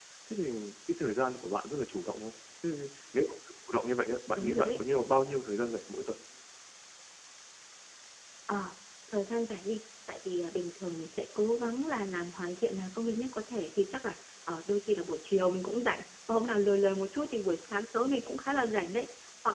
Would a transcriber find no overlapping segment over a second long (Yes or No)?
Yes